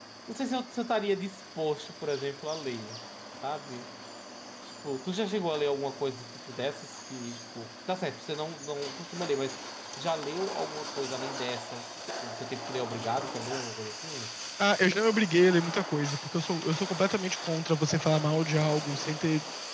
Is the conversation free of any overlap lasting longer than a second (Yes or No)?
Yes